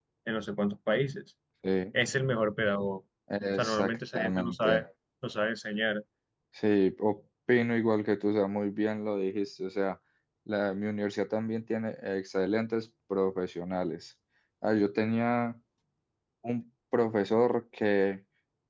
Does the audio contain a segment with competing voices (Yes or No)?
Yes